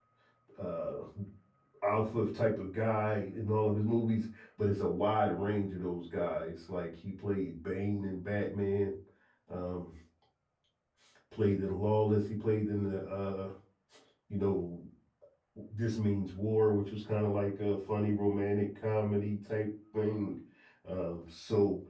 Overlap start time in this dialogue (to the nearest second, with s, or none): none